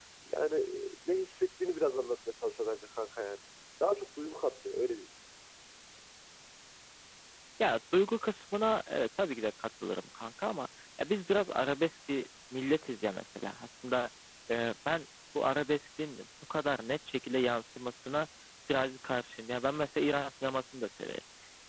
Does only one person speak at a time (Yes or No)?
Yes